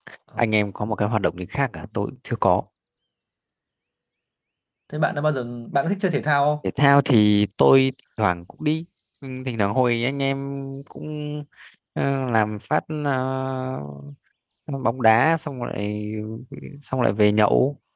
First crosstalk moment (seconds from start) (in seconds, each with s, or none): none